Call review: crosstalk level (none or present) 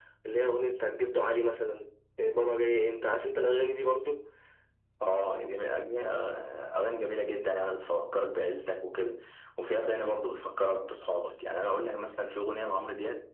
none